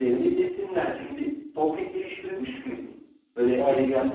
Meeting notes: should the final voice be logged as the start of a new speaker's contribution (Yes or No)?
No